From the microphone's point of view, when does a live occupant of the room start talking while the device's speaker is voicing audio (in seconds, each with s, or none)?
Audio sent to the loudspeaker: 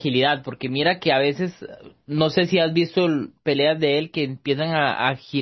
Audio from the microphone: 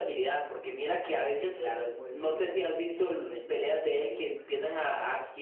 1.2 s